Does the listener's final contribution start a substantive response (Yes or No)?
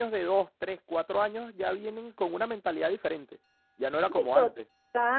Yes